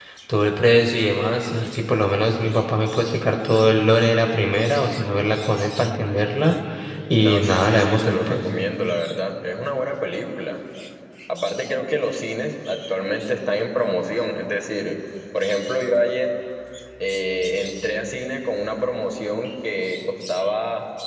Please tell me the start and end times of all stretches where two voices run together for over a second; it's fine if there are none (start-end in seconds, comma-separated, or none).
7.2-8.4